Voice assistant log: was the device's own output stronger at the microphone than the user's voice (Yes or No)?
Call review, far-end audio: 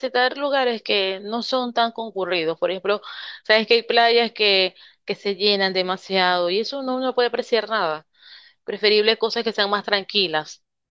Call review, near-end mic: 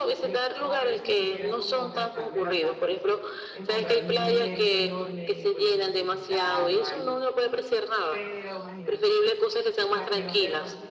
Yes